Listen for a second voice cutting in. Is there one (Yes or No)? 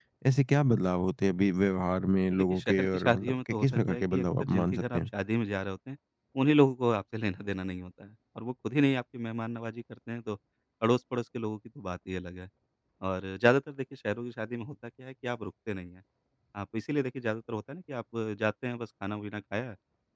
Yes